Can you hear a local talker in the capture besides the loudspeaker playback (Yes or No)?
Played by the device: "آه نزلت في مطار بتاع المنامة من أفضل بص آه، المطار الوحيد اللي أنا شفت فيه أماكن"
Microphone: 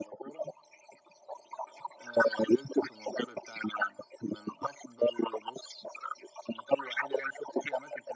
No